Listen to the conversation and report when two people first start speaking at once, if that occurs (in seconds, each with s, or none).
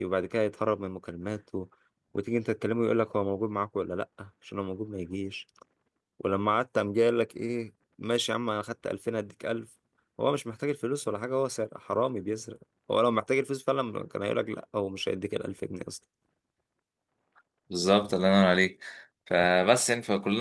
none